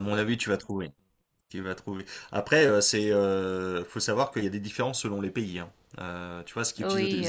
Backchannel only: Yes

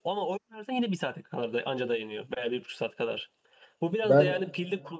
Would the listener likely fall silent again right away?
Yes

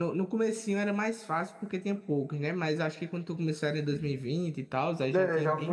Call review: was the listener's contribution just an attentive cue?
No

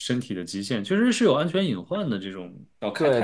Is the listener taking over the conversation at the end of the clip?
Yes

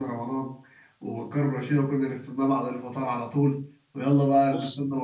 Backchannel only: Yes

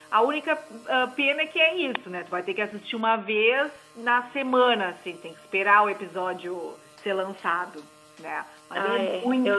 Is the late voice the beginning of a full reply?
Yes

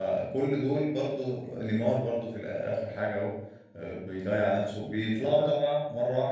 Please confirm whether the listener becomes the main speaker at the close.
No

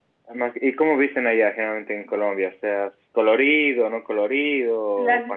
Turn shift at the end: Yes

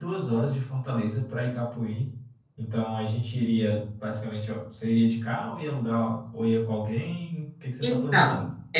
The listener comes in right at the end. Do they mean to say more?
Yes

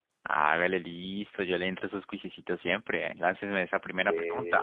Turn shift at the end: Yes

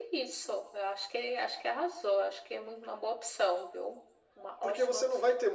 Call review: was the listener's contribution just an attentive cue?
No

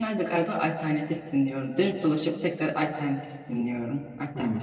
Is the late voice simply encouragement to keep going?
Yes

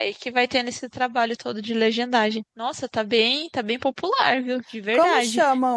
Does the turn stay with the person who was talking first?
No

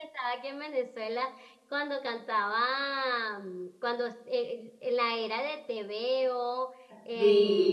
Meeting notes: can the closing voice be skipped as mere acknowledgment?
Yes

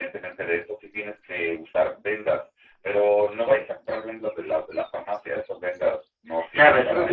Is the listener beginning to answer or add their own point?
Yes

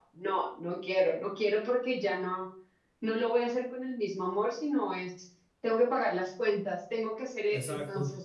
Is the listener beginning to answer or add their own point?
No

